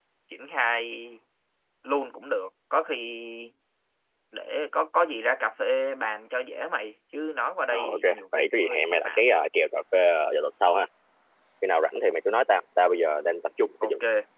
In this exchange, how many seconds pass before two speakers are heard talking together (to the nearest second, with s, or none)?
8 s